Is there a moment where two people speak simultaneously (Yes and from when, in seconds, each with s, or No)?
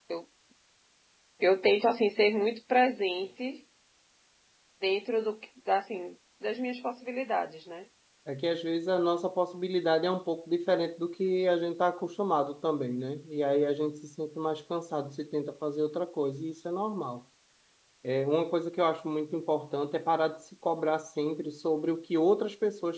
No